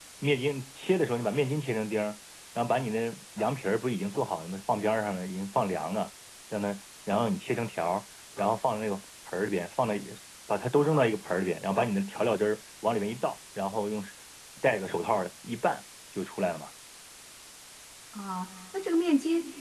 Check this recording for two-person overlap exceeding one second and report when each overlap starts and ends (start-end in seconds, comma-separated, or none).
none